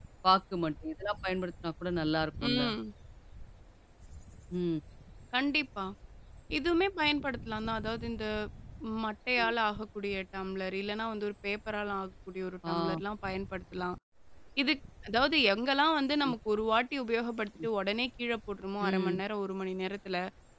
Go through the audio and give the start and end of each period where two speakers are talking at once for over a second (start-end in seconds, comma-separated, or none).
none